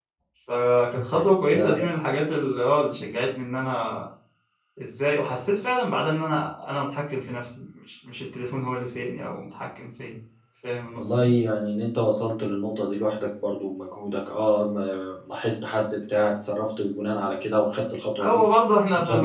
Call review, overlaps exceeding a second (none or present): none